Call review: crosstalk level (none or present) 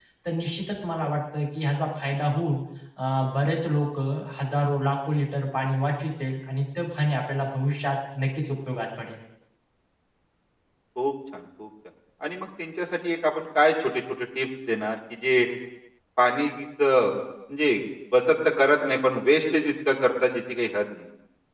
none